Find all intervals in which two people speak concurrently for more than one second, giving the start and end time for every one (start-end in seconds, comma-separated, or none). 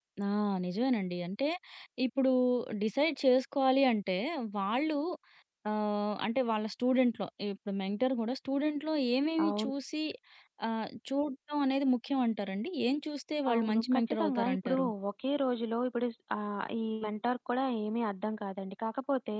13.5-14.9